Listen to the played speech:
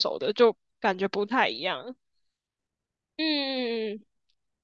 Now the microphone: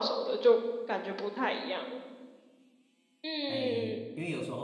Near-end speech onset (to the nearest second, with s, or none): 3 s